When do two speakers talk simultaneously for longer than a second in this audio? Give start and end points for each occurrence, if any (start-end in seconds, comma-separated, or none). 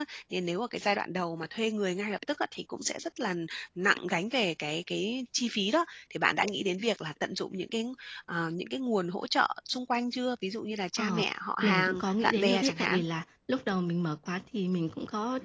11.6-13.0